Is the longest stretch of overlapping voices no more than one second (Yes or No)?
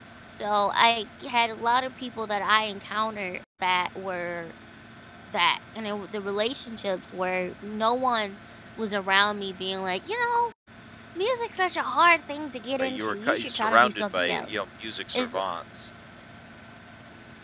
No